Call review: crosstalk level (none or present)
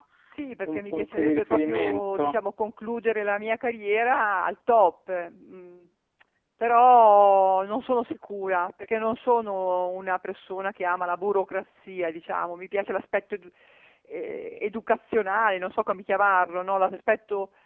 present